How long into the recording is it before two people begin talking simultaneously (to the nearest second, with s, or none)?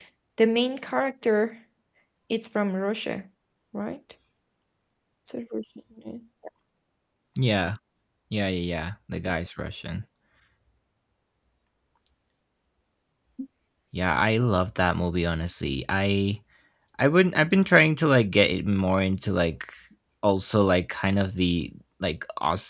none